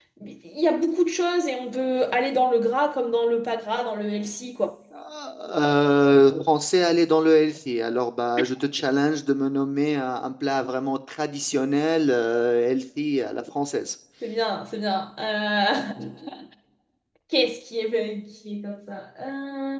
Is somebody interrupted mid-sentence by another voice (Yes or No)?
No